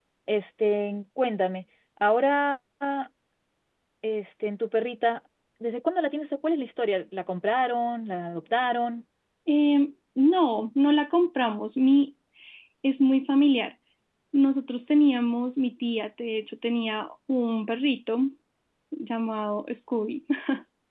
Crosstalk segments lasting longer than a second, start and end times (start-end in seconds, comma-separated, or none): none